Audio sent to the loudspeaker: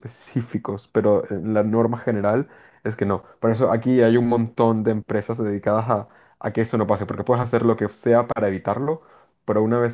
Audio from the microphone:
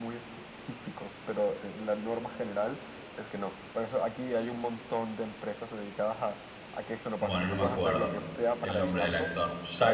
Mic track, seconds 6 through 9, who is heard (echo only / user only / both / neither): both